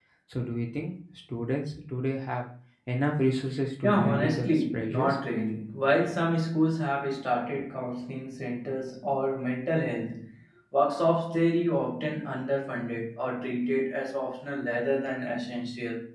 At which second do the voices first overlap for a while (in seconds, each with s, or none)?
3.8 s